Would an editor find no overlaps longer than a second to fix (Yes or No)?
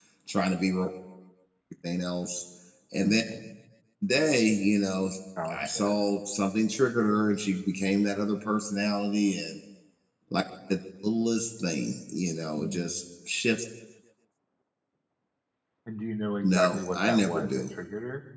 No